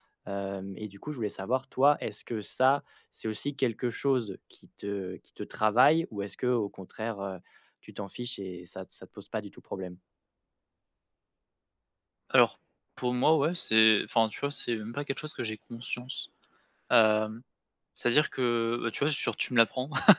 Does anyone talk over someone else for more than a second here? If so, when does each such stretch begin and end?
none

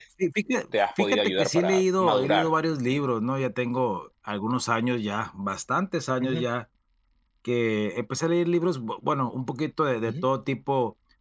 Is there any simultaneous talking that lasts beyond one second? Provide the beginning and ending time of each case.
1.0-2.5

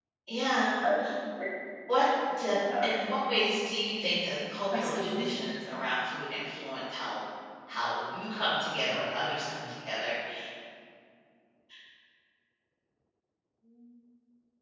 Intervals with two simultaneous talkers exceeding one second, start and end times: none

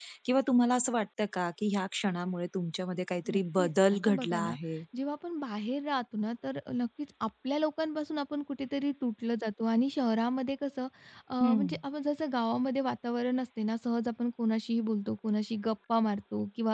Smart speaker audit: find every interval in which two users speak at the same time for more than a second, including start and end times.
3.3-4.5

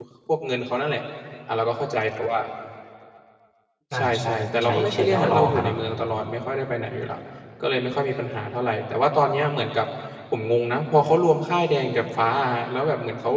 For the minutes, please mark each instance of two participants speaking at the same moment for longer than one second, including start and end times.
4.0-5.8

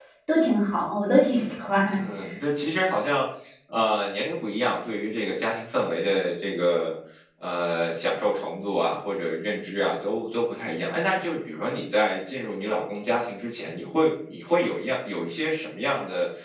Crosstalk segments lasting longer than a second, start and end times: none

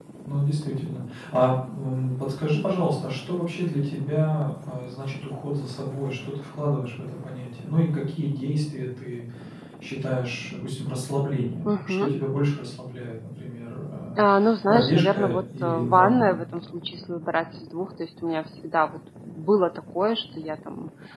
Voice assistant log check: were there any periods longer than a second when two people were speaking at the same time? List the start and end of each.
14.7-16.4

